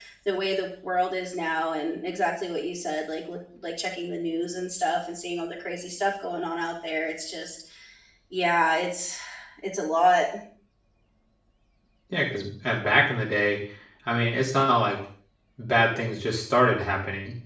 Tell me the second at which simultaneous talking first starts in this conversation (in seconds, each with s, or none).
none